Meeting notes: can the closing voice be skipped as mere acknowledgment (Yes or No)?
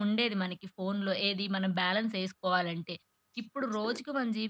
Yes